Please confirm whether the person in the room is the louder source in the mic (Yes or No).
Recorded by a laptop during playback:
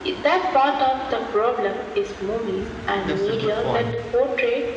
No